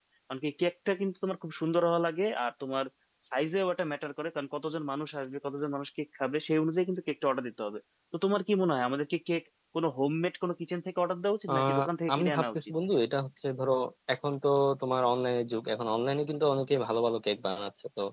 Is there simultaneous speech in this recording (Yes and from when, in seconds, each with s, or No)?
Yes, from 11.5 s